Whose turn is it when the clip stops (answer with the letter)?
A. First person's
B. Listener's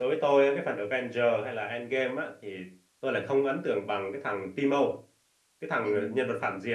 A